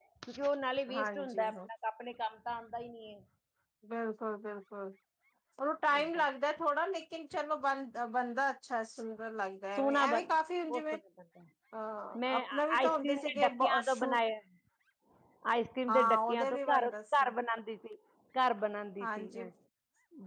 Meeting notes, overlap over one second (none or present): present